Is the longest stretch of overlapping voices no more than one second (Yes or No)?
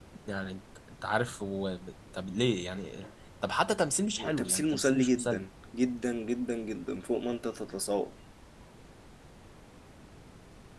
No